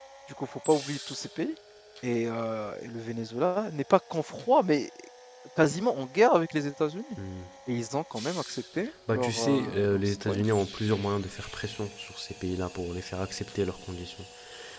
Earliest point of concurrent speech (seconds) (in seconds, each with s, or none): 9.1 s